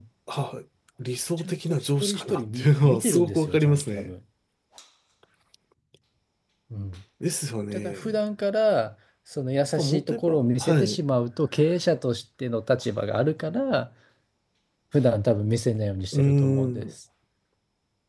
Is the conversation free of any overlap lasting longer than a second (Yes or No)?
No